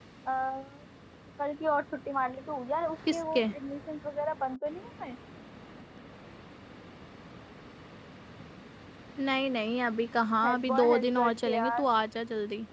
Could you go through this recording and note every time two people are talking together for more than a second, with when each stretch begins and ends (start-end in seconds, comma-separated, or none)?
10.4-11.9